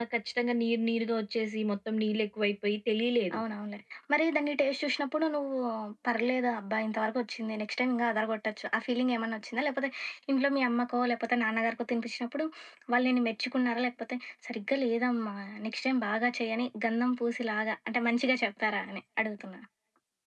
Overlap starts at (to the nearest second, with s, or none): none